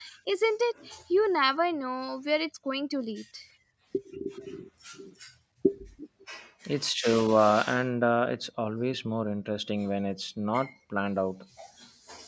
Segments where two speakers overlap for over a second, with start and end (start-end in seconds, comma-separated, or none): none